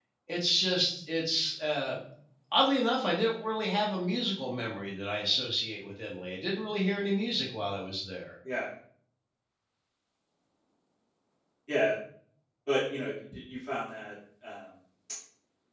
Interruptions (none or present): none